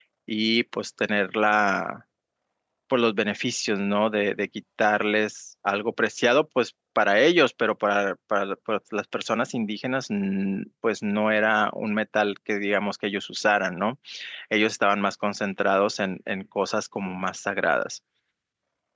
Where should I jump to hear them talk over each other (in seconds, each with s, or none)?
none